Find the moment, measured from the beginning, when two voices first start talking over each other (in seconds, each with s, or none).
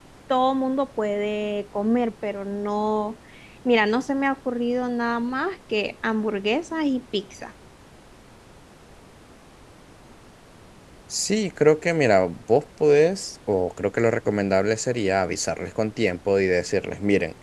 none